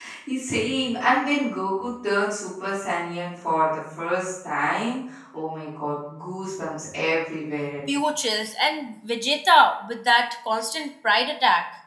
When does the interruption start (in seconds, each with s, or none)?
none